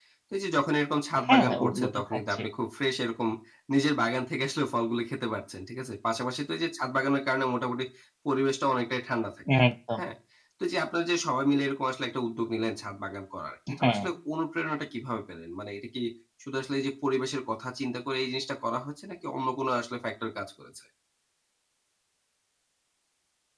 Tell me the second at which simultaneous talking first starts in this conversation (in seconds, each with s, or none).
1.2 s